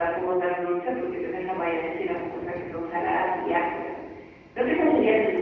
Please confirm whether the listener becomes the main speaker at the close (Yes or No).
No